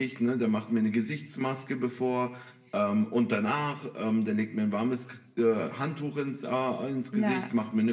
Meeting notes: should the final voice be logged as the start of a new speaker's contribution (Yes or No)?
No